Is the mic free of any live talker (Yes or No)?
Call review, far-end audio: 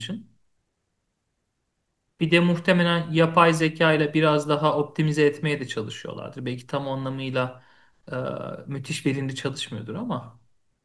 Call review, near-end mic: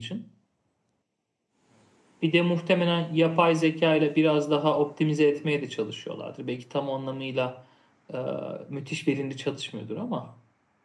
Yes